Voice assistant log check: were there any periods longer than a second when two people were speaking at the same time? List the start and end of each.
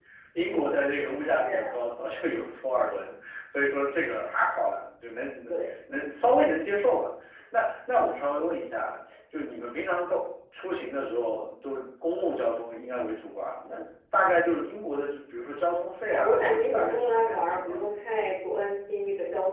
16.1-17.9

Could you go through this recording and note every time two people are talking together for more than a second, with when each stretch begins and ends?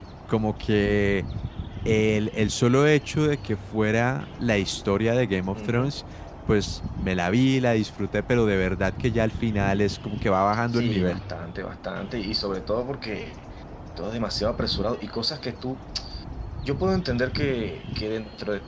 none

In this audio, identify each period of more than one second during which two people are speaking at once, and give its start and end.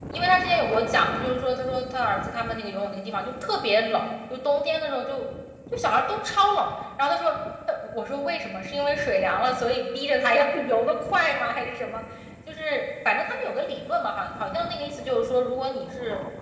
none

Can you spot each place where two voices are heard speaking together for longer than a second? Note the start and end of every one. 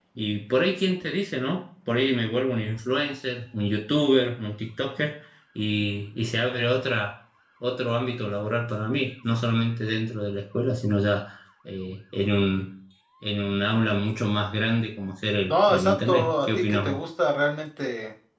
15.5-17.0

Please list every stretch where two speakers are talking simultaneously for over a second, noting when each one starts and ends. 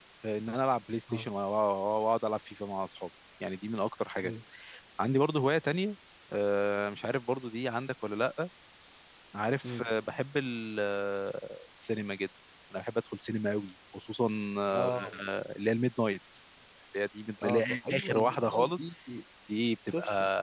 17.4-18.7

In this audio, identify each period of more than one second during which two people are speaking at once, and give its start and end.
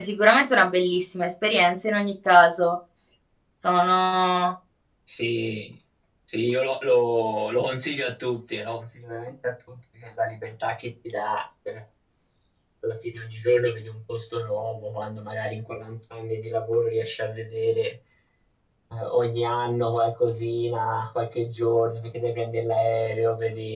none

